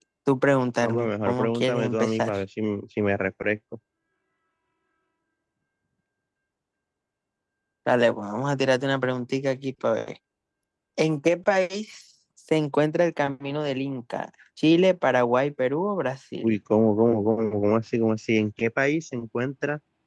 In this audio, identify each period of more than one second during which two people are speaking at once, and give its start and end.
0.8-2.3

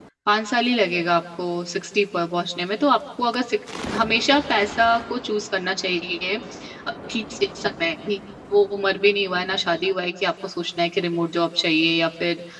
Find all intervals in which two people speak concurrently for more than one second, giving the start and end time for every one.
none

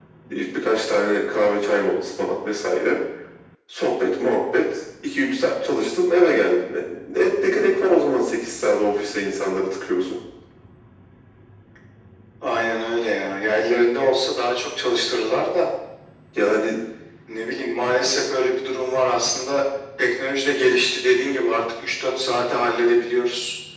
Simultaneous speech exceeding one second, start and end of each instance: none

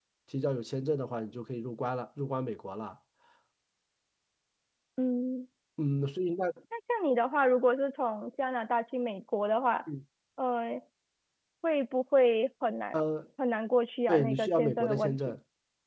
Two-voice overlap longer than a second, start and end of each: 14.1-15.4

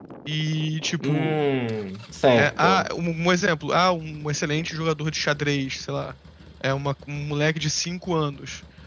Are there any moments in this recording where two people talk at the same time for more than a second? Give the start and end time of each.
none

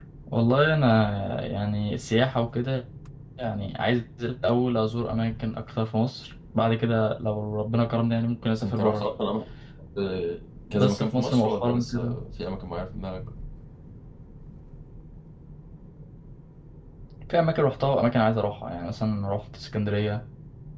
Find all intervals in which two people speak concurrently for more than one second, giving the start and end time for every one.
10.7-12.2

